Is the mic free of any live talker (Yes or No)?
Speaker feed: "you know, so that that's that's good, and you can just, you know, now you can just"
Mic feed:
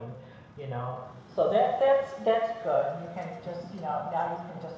Yes